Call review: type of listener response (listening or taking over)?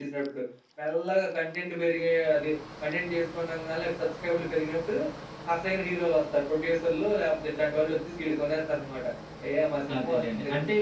taking over